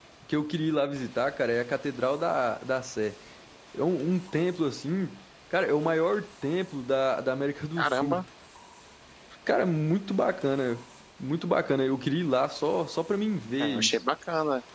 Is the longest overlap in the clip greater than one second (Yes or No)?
No